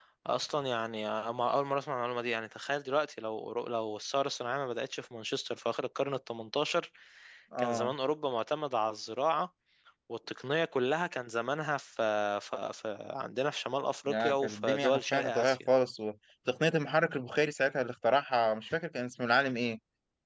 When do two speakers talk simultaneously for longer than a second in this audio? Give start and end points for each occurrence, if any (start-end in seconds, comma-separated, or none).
14.1-15.6